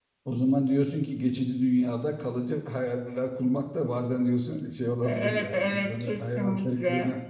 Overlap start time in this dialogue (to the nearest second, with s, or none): 5 s